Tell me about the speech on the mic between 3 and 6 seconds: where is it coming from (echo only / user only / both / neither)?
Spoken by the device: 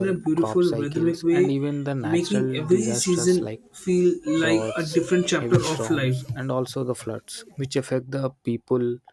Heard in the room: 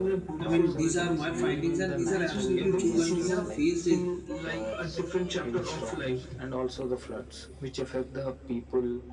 both